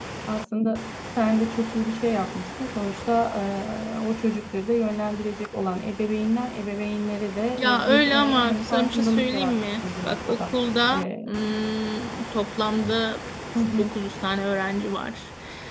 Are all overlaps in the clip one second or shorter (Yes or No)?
No